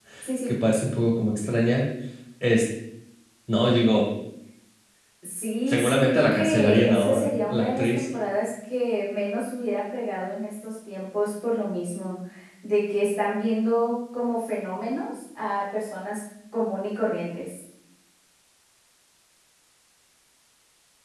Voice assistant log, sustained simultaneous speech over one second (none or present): present